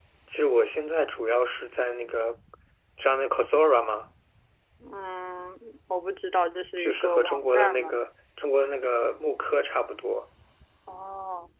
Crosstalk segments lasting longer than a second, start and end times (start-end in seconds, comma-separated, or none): 6.8-8.0